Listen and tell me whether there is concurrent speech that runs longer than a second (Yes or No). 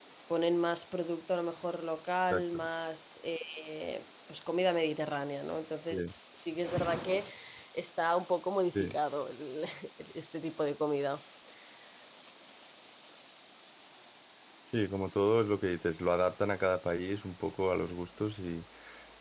No